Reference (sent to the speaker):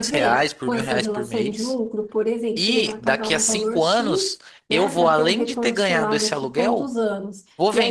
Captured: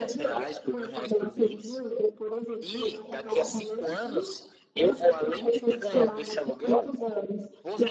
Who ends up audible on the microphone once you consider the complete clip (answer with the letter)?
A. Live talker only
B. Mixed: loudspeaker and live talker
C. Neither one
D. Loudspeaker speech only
D